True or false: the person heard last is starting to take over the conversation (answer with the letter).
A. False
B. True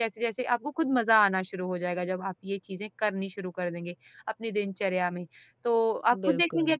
A